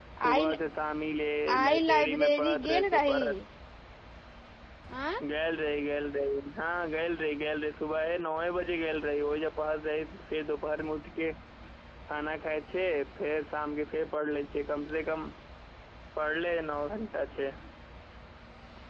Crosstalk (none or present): present